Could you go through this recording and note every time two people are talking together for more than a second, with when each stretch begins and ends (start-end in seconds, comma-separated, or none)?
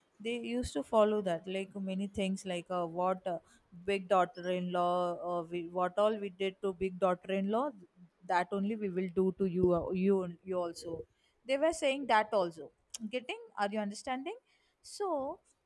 none